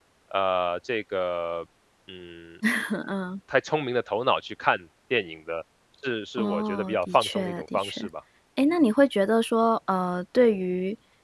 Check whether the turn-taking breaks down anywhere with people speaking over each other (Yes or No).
Yes